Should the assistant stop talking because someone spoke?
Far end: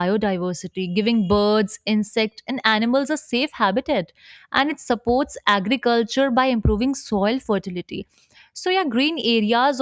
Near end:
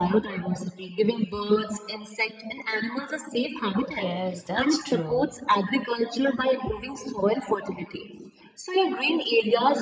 Yes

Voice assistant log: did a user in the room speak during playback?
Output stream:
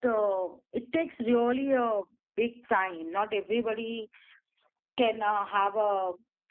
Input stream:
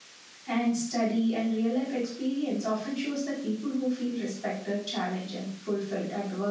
Yes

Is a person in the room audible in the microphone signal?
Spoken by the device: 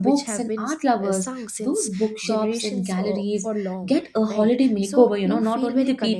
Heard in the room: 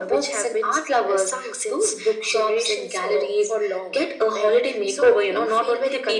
No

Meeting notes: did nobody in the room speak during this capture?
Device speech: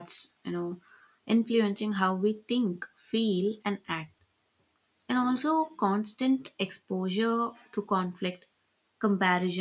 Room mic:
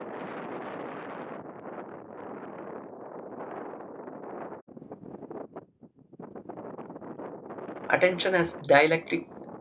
No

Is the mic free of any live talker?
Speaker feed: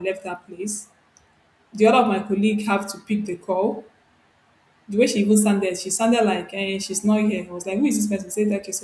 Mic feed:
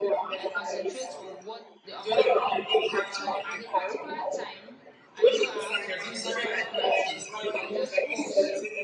No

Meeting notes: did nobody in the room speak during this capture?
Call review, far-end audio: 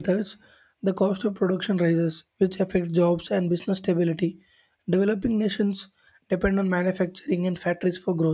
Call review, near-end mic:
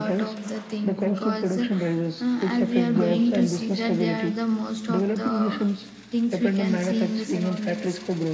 No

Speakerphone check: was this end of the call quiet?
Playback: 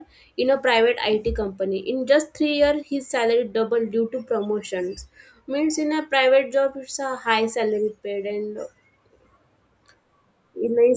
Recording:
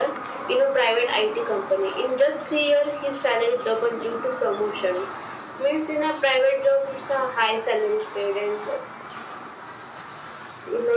Yes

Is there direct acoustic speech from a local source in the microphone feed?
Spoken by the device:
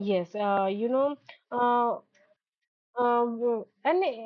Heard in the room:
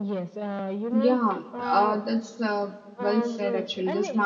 Yes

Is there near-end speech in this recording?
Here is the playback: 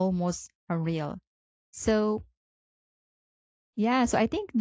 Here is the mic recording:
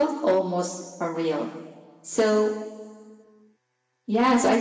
No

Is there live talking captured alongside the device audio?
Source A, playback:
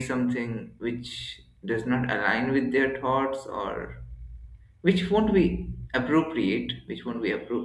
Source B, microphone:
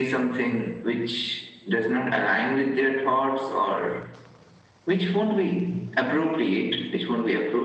No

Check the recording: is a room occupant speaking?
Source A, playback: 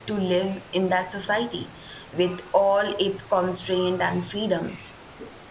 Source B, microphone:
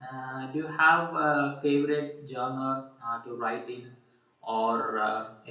Yes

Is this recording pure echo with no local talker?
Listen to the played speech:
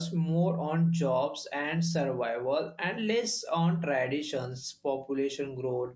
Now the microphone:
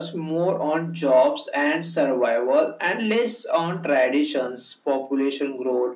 Yes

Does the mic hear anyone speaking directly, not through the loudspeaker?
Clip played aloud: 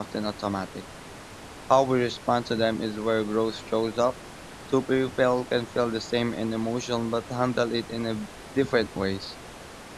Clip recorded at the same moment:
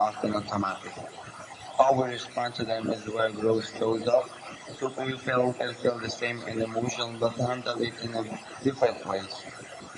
No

